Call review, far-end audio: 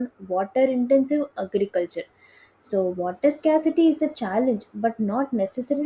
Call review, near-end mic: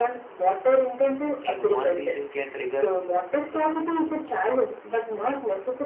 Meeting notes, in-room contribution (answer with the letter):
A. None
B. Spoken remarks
B